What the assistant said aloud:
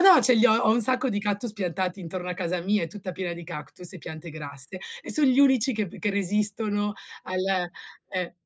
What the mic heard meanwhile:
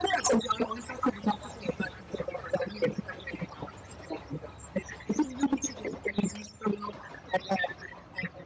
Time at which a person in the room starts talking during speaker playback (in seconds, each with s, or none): none